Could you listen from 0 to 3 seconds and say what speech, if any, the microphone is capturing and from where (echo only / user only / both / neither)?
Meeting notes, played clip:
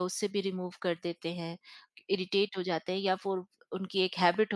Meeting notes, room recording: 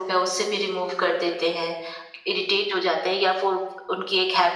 echo only